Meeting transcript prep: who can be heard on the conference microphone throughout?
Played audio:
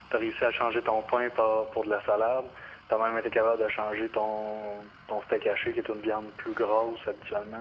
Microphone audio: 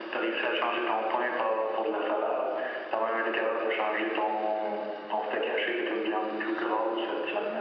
echo only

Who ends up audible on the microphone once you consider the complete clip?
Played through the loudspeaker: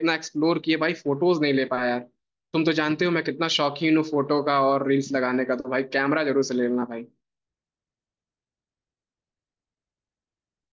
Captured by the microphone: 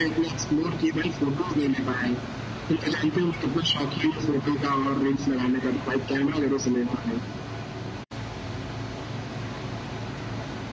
echo only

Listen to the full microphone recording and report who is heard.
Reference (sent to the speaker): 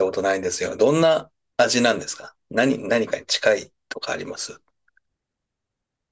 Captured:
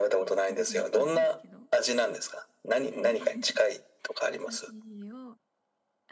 both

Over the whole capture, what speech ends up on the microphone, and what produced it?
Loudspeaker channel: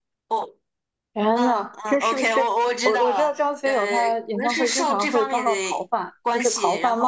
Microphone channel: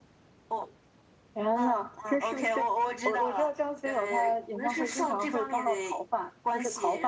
echo only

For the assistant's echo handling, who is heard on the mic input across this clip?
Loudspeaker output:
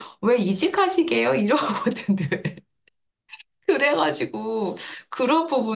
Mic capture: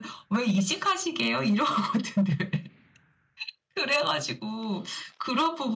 echo only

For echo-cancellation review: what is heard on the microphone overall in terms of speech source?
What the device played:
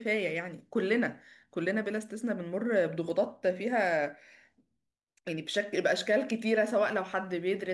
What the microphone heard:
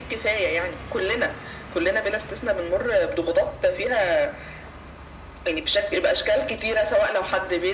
echo only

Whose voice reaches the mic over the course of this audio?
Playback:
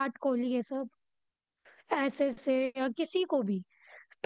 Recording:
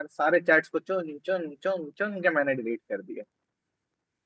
user only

